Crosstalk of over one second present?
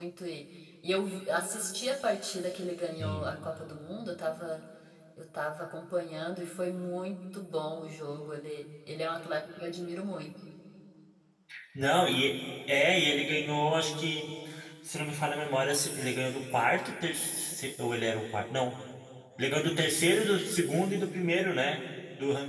No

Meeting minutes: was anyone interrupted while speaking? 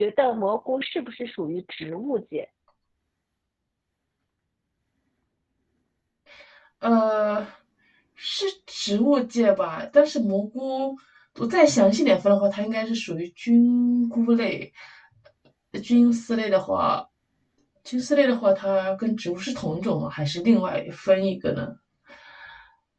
No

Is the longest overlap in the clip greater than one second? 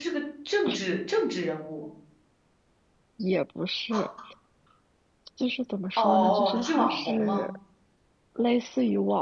Yes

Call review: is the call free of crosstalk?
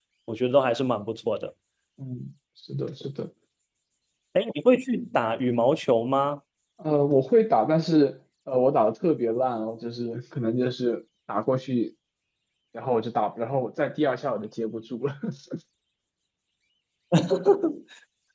Yes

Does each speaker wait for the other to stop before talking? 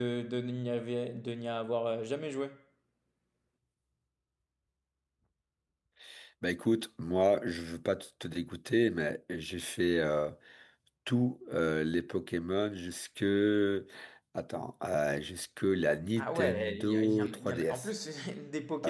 No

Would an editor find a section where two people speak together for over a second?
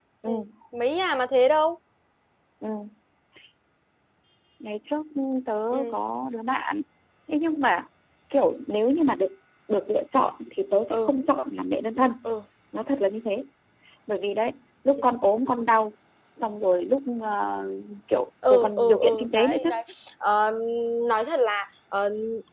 Yes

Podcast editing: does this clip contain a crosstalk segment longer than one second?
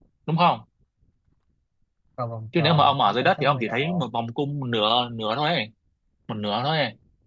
Yes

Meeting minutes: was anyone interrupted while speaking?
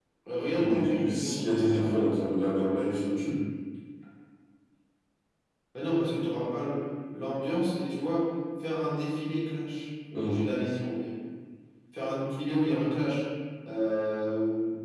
Yes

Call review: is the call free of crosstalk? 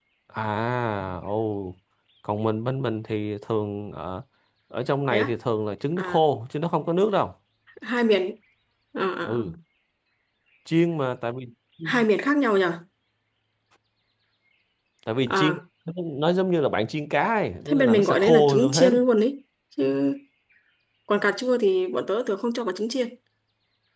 No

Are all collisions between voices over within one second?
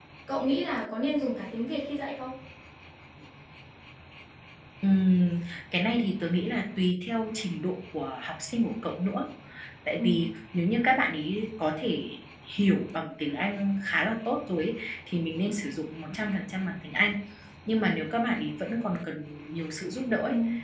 Yes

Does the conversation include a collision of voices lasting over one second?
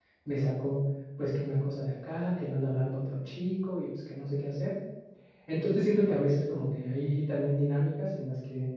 No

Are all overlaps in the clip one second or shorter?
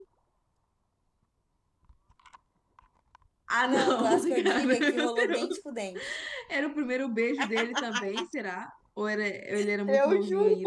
No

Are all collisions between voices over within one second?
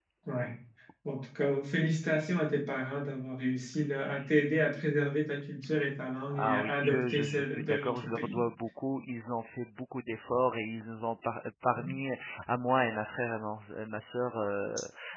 No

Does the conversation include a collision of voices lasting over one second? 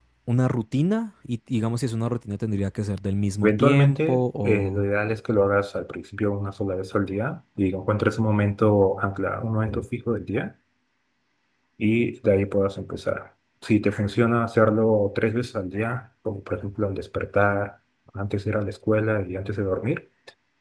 Yes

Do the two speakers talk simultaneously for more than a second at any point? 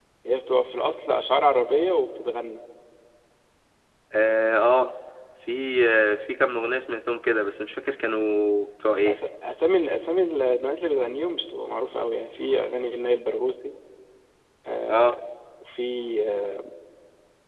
No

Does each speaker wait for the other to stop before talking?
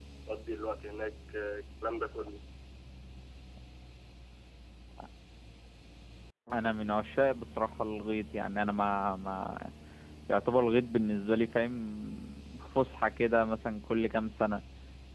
Yes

